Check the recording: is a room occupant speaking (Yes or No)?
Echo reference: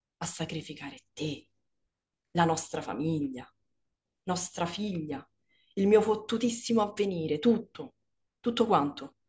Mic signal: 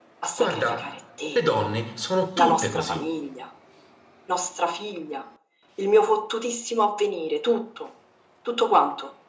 Yes